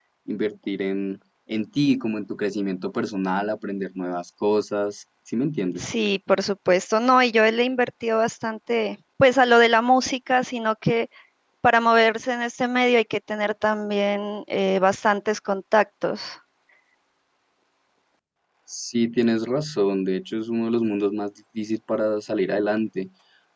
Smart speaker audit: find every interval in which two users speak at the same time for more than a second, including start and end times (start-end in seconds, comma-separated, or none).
none